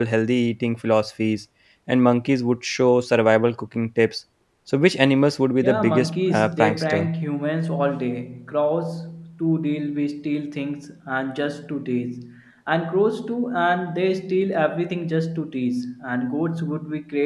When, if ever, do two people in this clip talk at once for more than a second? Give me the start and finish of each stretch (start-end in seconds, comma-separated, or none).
5.6-7.1